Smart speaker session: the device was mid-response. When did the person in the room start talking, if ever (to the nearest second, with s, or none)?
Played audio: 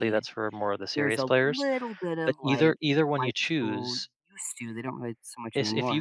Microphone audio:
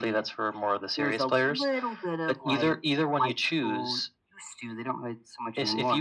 none